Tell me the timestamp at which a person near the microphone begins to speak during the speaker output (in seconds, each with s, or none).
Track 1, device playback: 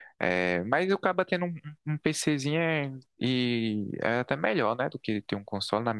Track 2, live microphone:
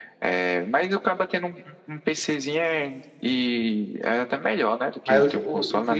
5.0 s